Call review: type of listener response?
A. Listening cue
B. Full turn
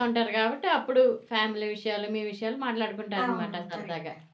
B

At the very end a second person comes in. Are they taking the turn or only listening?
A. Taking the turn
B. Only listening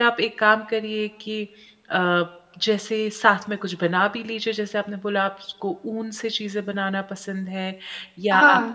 B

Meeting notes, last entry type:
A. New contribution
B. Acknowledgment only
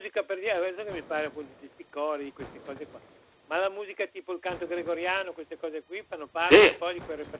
A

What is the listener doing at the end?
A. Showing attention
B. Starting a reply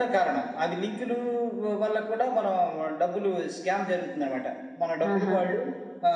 A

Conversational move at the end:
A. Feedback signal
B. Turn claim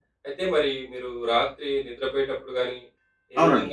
A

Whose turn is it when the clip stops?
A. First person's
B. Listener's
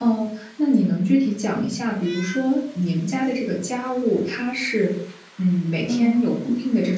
A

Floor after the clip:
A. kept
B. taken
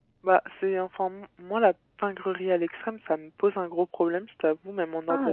B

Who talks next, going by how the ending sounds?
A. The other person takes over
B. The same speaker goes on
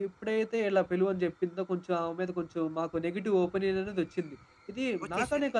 B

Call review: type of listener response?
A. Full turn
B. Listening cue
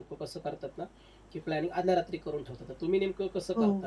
A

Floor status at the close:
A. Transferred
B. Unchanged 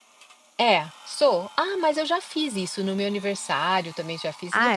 B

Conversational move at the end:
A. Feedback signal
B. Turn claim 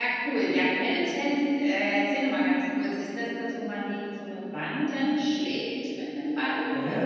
B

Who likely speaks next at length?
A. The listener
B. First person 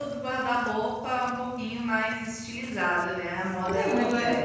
A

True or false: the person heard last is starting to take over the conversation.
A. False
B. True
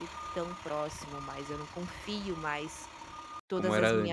A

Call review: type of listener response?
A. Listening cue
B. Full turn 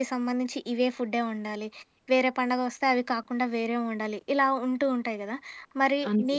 A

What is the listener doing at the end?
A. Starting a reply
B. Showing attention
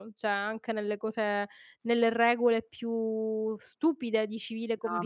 A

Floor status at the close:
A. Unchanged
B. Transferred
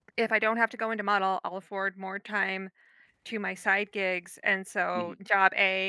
A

